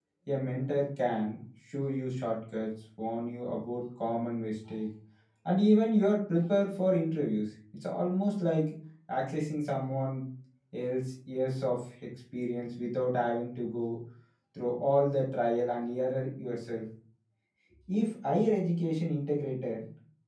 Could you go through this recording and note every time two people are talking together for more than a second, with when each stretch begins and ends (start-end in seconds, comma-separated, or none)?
none